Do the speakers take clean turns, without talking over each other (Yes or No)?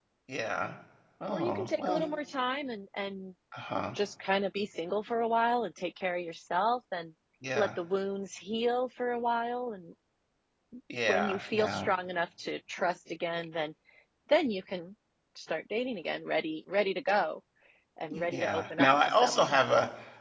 No